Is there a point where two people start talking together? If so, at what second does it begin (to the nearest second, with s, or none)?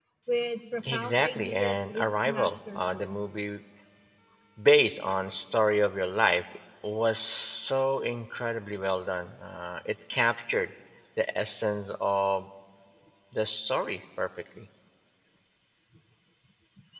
1 s